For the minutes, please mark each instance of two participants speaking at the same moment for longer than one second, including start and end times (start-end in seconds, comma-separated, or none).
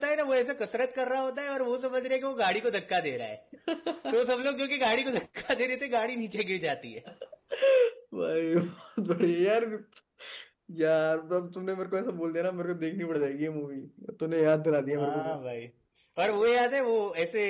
none